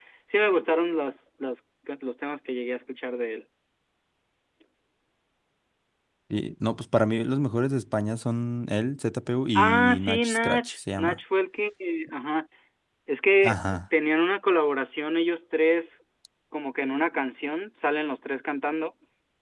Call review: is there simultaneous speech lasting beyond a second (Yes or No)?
Yes